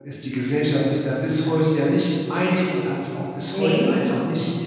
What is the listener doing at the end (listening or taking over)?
listening